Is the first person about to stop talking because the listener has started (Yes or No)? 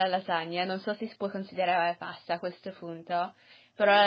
No